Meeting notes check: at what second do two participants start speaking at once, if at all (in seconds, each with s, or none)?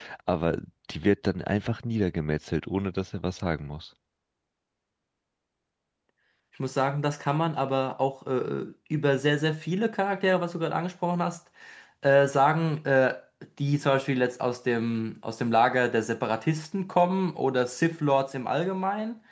none